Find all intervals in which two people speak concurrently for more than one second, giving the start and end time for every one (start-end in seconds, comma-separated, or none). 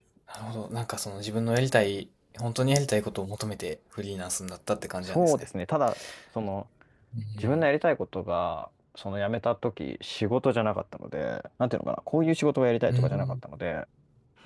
none